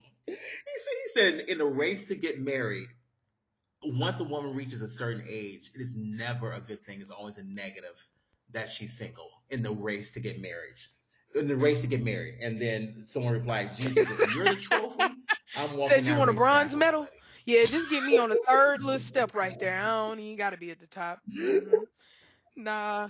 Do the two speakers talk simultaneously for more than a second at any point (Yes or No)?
Yes